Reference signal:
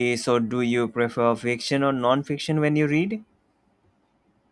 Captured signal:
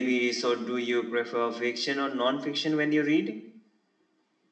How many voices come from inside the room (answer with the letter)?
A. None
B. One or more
A